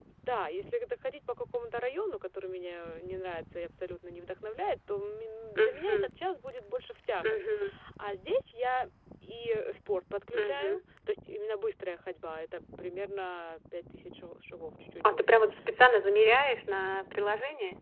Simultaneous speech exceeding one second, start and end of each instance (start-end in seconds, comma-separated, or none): none